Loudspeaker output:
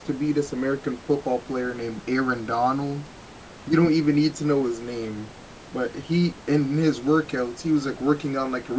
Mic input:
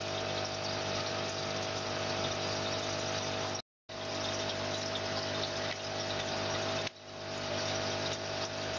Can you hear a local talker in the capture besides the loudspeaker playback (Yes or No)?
No